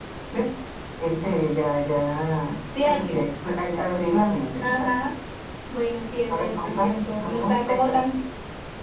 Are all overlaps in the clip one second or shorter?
No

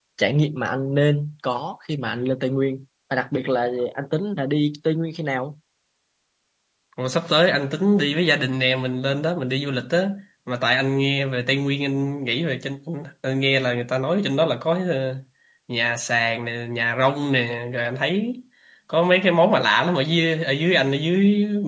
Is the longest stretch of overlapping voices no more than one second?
Yes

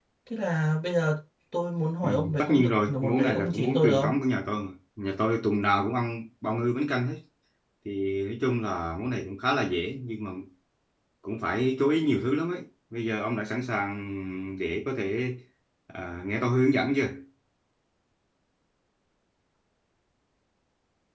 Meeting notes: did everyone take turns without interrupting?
No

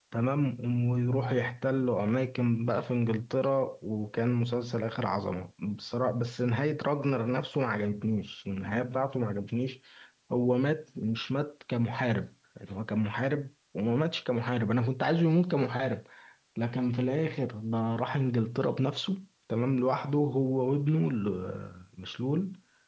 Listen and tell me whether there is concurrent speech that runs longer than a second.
No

